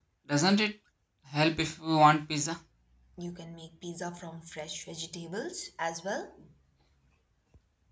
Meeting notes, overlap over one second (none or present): none